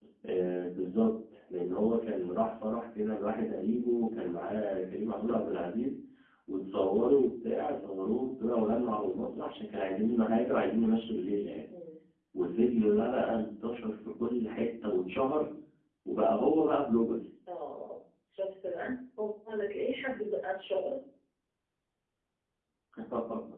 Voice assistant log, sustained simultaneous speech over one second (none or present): none